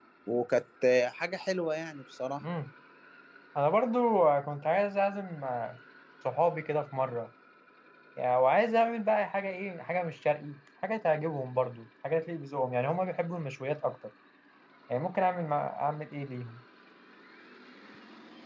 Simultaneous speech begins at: none

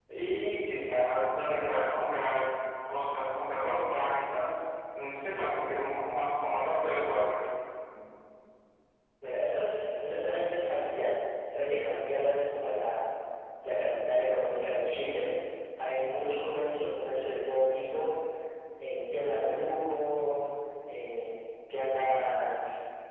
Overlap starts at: none

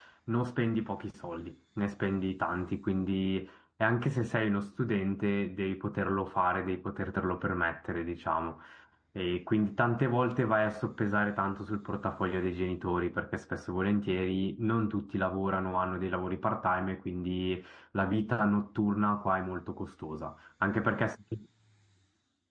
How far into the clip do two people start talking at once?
none

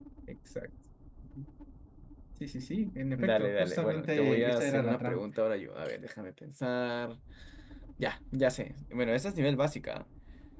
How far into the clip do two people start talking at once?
3.1 s

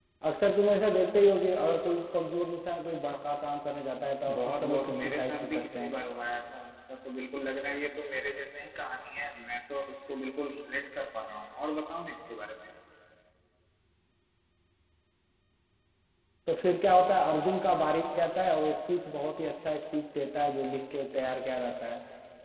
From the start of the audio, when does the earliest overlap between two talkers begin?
4.3 s

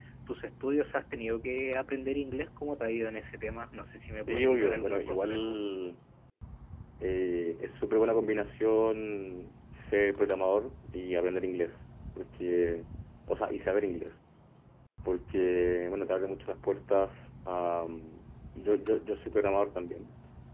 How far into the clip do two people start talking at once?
4.2 s

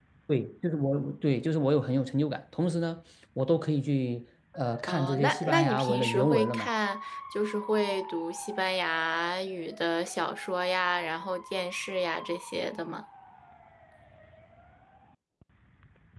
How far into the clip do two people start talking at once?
4.9 s

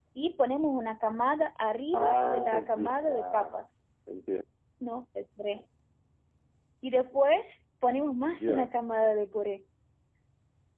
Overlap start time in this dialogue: 1.9 s

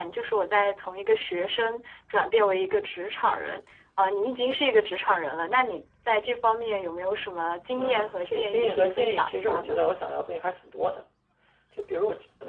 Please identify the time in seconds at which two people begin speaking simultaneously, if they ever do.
7.7 s

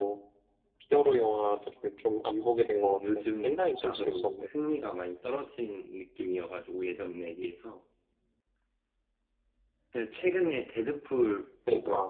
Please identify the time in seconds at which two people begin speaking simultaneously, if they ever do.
2.7 s

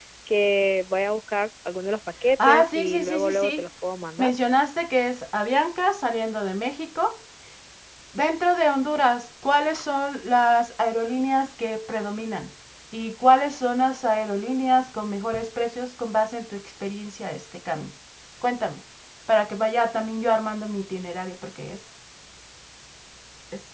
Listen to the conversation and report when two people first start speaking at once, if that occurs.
2.4 s

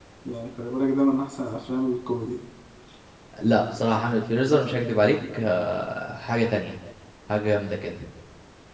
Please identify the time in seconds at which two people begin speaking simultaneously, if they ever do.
none

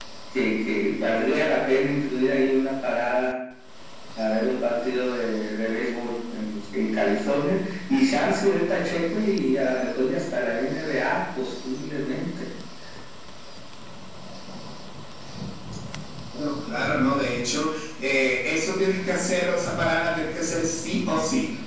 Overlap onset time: none

